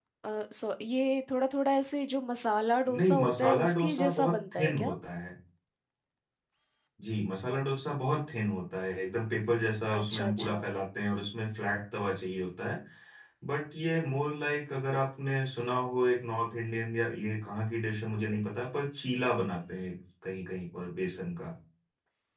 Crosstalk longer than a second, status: present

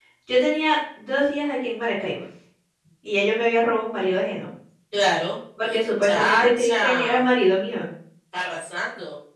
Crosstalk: present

